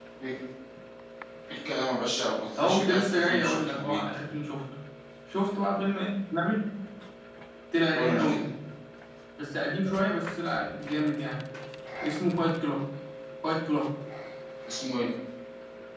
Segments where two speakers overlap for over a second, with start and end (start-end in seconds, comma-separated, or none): 2.6-4.0